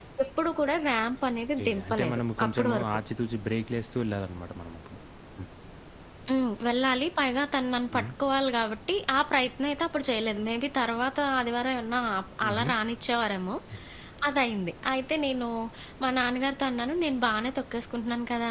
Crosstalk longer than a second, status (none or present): present